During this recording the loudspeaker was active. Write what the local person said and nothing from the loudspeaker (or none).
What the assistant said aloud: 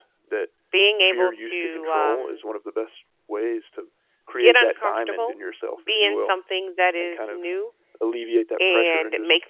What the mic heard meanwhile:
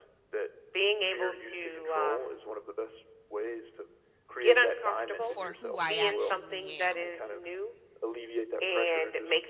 for who I actually am.